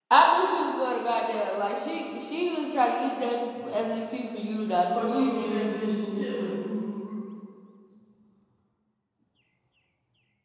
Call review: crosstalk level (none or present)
present